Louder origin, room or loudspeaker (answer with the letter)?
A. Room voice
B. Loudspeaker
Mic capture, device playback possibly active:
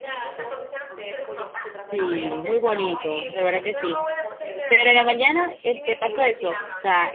A